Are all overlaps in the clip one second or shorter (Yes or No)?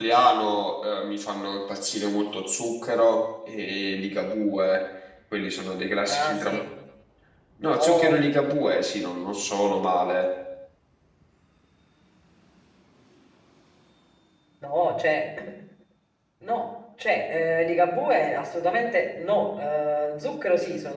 Yes